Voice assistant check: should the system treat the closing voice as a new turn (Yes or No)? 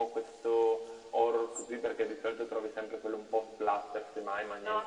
Yes